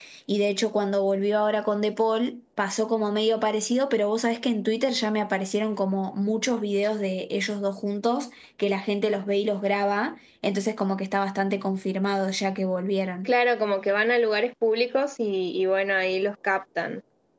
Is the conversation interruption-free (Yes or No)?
Yes